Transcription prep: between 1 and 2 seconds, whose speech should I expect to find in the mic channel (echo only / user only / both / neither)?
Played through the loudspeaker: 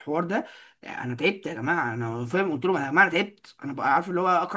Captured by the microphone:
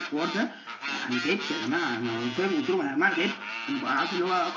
echo only